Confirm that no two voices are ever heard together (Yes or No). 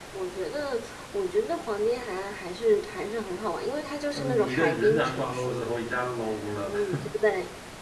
No